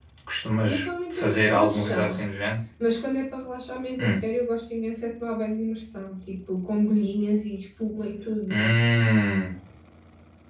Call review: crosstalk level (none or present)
present